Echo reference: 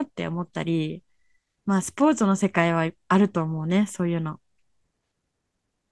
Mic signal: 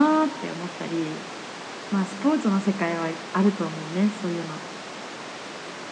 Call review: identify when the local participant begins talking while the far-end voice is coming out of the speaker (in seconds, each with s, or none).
none